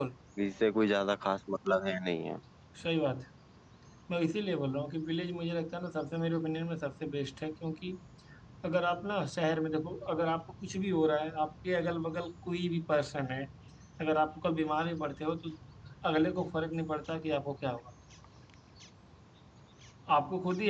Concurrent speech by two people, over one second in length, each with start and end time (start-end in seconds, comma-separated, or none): none